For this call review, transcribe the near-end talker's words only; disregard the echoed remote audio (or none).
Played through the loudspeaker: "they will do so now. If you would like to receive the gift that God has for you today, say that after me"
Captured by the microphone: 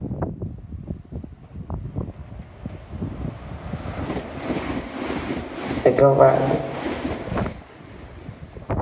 It go right.